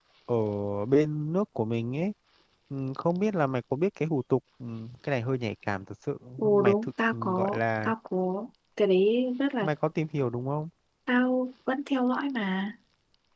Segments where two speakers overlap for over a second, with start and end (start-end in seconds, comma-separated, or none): 6.4-7.9